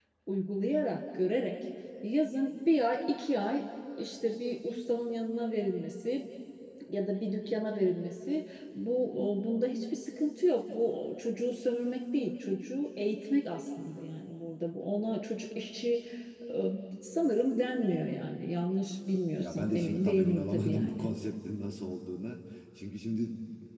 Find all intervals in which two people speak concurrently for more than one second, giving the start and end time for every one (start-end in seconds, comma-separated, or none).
19.4-21.1